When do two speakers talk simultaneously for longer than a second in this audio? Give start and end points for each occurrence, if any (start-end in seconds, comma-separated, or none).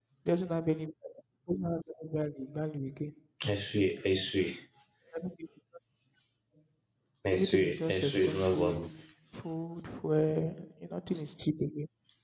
7.3-8.8